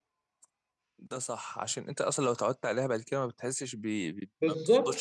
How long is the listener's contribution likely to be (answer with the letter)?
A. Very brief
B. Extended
B